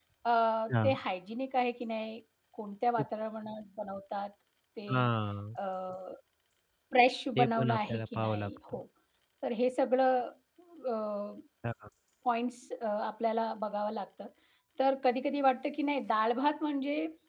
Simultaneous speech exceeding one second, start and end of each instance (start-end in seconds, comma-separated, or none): 7.4-8.8